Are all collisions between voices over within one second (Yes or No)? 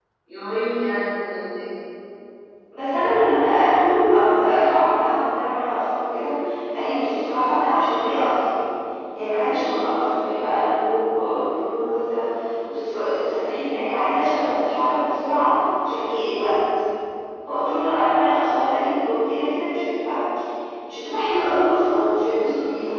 Yes